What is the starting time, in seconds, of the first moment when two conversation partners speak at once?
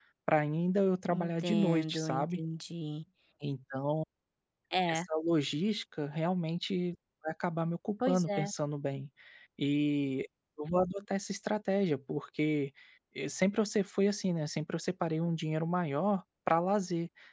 1.1 s

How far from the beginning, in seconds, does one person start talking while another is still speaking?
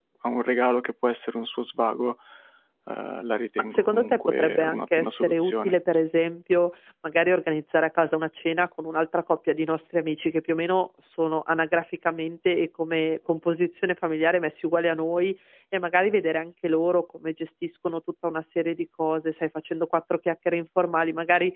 3.7 s

